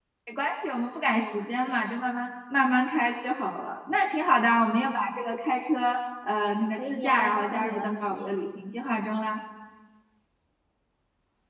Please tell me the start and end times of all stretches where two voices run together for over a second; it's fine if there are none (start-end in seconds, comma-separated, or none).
6.8-8.3